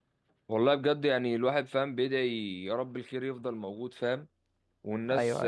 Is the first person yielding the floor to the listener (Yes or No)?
No